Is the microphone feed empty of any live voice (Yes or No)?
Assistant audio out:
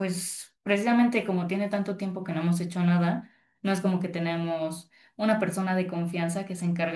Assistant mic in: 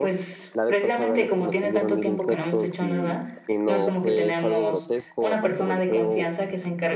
No